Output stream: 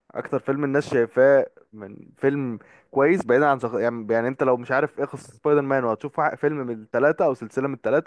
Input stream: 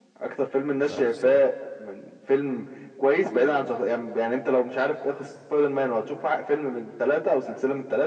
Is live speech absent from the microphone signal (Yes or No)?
No